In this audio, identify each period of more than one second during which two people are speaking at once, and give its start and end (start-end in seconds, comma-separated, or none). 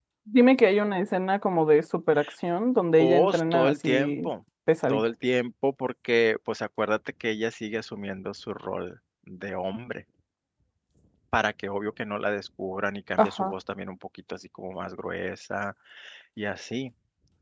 3.0-4.3